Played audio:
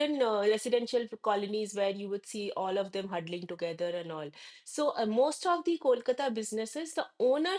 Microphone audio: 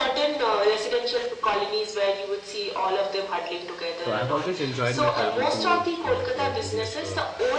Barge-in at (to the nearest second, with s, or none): 4 s